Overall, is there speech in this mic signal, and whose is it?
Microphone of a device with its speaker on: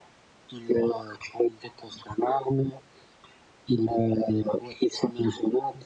echo only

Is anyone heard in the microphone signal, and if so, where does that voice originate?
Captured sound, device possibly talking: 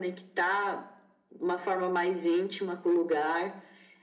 echo only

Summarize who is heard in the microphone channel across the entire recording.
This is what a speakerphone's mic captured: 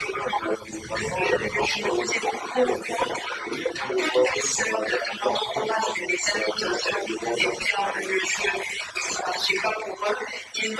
echo only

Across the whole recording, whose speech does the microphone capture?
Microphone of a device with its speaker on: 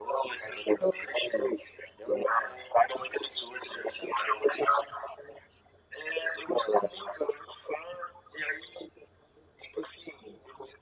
echo only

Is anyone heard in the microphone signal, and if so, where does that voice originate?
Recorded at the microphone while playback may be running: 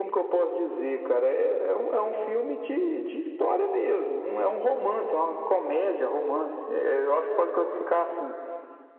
echo only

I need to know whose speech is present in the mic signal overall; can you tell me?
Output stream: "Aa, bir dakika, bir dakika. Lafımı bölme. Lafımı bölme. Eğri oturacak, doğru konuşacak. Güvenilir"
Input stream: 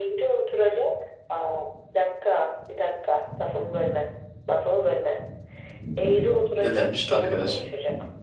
both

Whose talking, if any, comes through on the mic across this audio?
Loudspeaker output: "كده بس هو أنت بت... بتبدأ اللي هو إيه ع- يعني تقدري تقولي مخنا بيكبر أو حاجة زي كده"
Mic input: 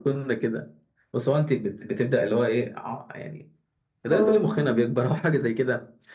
both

